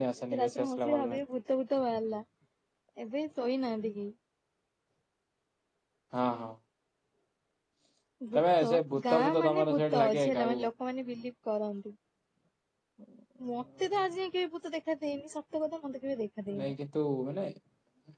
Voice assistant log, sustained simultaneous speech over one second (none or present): present